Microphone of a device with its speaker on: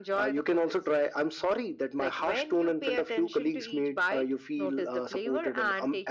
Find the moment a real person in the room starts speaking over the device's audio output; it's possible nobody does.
none

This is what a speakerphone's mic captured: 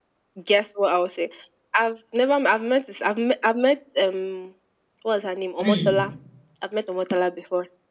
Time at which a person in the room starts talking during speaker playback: 5.6 s

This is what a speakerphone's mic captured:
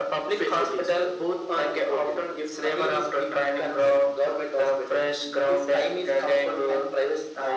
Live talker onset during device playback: none

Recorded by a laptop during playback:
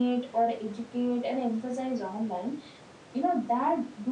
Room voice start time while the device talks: none

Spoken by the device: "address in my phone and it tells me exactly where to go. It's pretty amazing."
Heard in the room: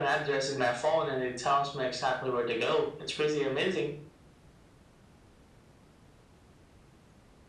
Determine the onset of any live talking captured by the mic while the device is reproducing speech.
none

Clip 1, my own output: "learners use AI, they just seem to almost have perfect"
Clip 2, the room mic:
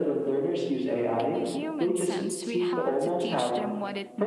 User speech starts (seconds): 1.2 s

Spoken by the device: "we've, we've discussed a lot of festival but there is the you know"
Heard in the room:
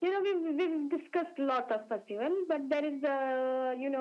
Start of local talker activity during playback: none

